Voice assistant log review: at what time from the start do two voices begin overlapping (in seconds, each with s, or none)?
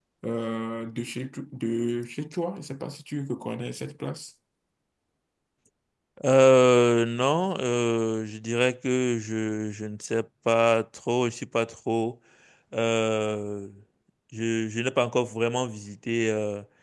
none